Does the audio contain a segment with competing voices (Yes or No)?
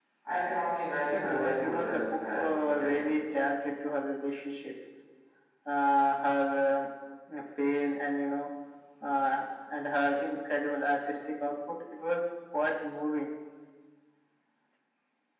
Yes